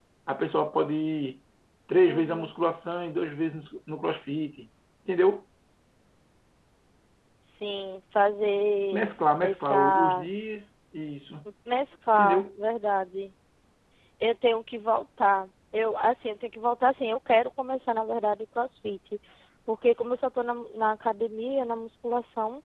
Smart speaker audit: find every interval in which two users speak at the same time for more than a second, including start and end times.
8.9-10.3

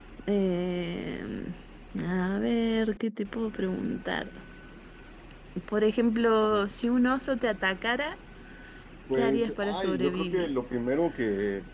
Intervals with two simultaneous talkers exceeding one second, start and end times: 9.1-10.5

